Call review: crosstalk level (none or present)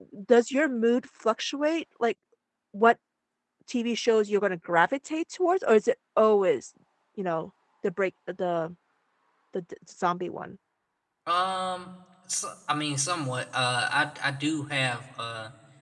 none